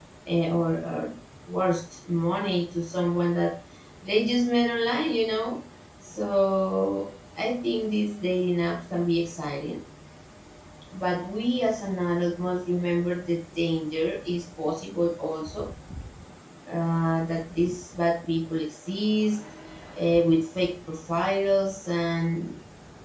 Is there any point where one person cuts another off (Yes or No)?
No